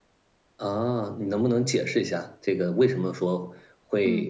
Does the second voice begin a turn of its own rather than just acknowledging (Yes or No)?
No